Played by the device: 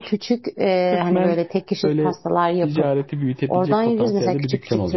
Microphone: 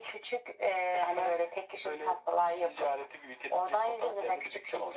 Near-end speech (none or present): none